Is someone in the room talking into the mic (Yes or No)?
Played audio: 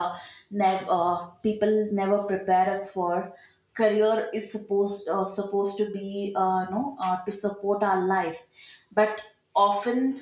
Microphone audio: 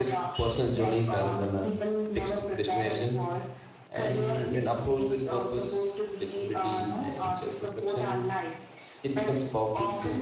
Yes